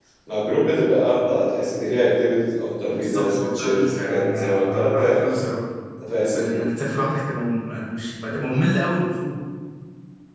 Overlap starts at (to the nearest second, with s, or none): 3 s